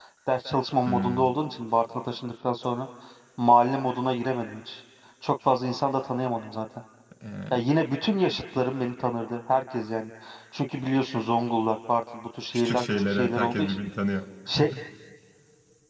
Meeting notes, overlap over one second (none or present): present